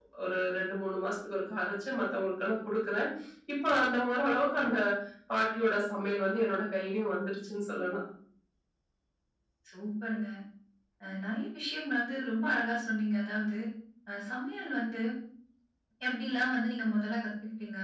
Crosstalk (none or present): none